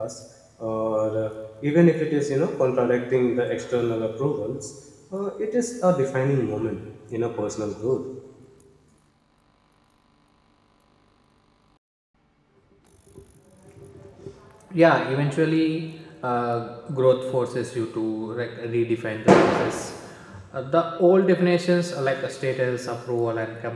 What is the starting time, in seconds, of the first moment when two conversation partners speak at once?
none

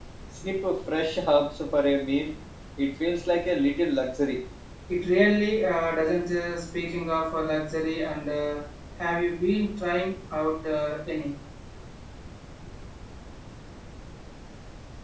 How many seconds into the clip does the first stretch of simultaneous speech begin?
none

